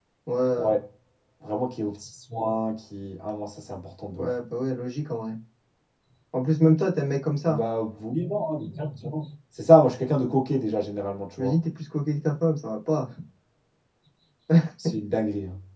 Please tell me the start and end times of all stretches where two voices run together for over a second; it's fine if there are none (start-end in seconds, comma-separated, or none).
none